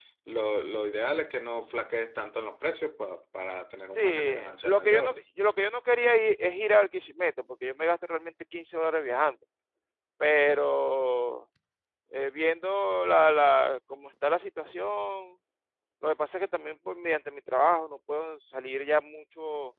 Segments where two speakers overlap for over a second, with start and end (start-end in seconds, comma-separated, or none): 3.9-5.2